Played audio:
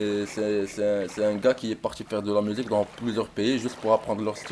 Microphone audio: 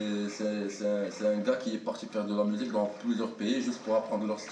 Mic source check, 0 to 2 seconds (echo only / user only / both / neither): echo only